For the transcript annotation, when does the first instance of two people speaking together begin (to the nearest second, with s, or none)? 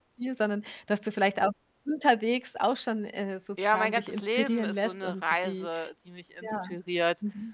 4 s